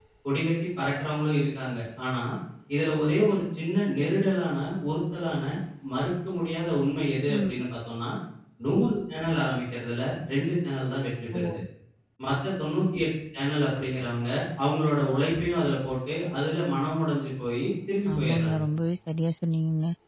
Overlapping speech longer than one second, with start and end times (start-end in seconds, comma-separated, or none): none